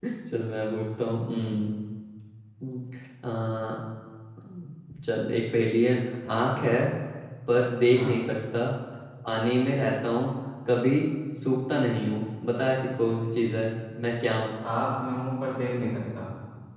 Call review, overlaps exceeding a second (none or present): none